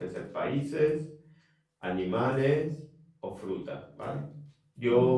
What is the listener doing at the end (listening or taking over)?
listening